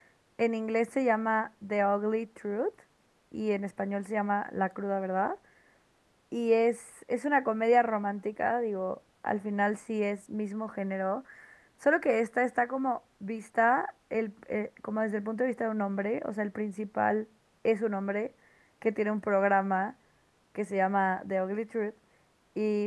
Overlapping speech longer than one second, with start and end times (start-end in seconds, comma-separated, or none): none